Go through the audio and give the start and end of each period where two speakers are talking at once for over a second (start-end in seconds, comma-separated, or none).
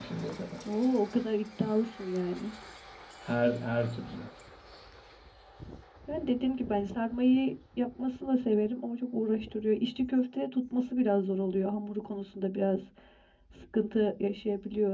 none